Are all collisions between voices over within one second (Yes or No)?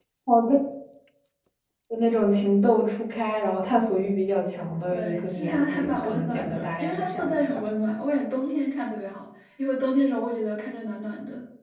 No